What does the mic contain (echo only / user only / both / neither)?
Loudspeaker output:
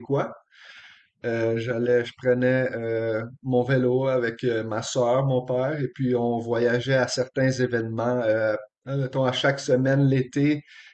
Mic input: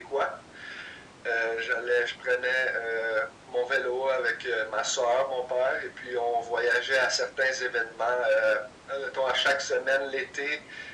echo only